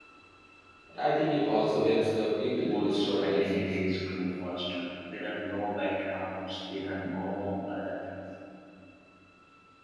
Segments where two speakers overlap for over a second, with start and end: 2.5-3.7

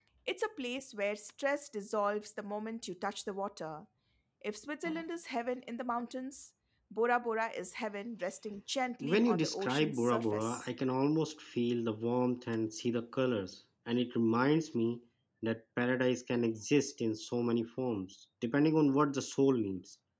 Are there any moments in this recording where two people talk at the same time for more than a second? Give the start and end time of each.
9.0-10.7

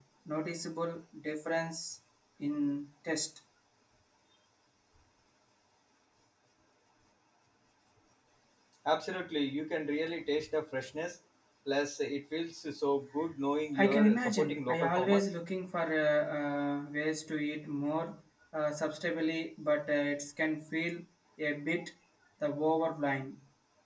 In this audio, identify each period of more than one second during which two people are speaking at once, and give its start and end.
13.8-15.2

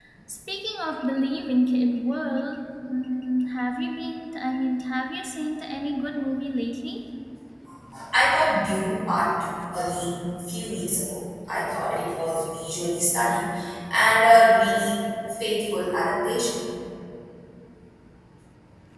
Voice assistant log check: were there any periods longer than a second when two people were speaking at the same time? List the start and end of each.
none

